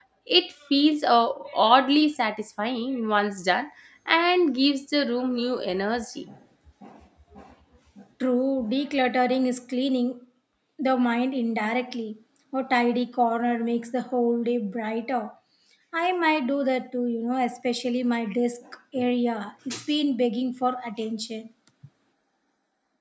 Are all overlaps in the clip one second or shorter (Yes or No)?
Yes